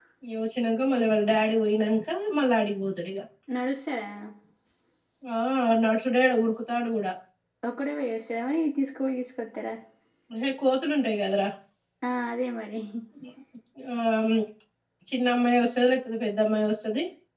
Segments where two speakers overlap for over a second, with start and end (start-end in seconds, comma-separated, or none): none